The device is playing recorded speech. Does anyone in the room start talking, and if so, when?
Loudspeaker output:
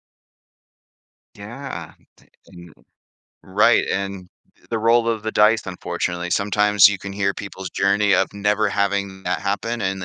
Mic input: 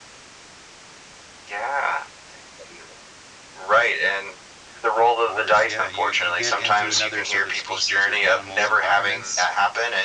4.8 s

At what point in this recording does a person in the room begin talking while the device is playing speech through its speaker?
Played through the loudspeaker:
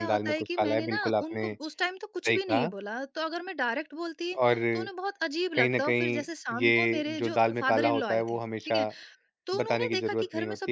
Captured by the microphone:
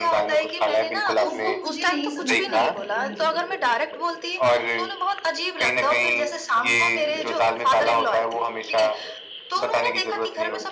1.2 s

